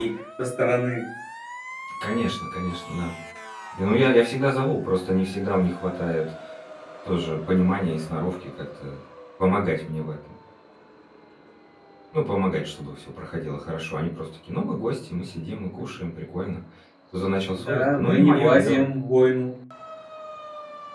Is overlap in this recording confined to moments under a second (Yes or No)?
No